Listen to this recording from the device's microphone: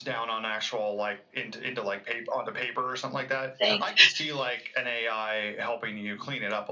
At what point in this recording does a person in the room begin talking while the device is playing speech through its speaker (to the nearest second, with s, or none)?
4 s